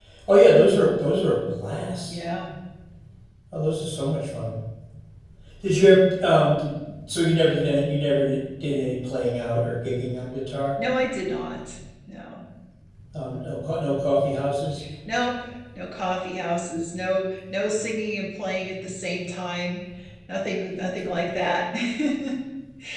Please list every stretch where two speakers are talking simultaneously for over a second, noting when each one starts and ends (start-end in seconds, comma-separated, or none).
none